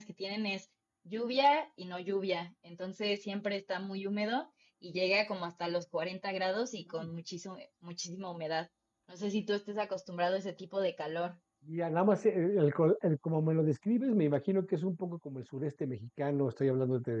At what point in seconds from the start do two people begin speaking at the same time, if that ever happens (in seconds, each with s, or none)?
none